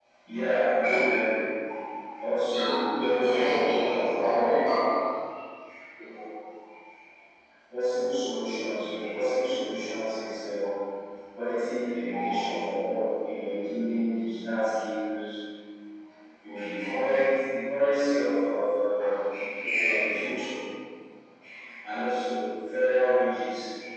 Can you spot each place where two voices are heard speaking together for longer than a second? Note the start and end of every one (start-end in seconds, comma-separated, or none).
3.0-4.6